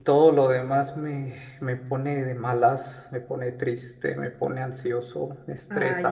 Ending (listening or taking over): taking over